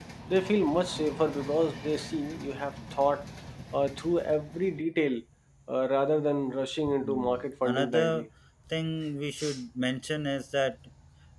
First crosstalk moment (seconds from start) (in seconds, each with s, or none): 6.9 s